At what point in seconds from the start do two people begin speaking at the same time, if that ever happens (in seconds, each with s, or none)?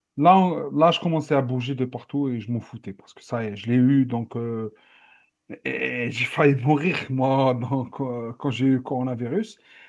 none